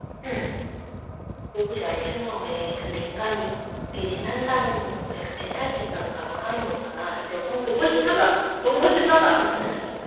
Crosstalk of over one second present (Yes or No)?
Yes